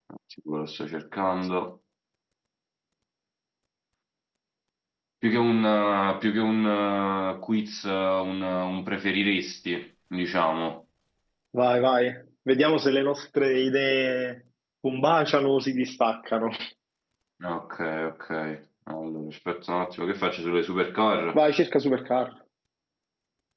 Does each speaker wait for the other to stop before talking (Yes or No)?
Yes